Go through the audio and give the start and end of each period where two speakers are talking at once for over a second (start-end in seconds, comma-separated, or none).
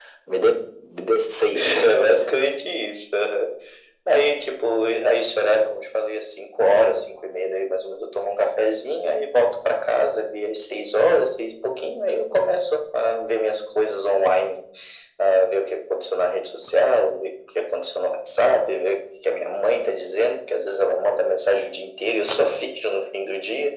none